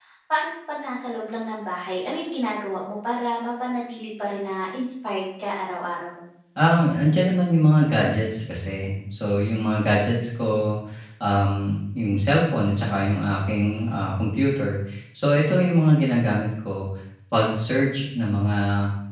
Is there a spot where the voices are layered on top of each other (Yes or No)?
No